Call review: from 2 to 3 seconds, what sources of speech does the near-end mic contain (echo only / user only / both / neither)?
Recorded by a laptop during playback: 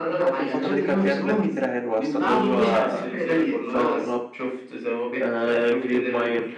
both